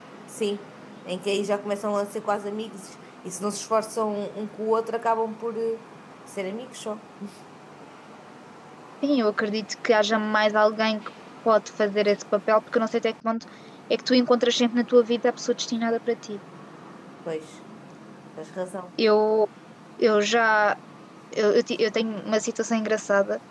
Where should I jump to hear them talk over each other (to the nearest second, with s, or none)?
none